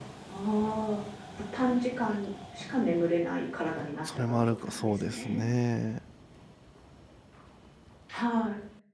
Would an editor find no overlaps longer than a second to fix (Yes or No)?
No